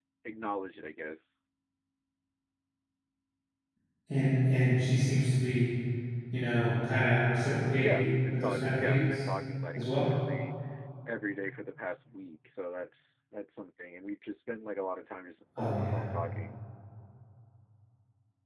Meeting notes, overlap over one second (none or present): present